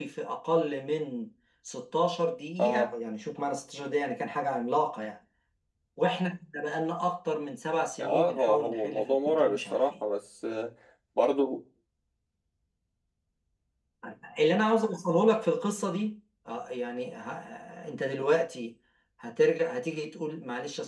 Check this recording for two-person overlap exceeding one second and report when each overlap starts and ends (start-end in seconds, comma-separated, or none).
8.0-9.9